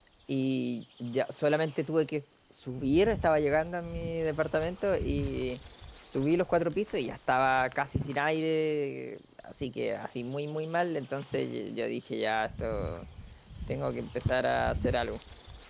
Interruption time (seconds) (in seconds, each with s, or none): none